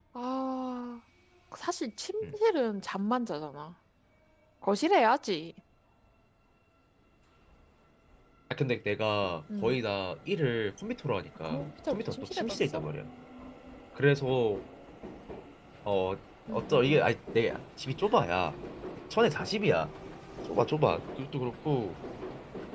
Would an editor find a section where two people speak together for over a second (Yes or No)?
Yes